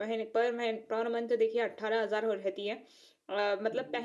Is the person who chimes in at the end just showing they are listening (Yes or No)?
Yes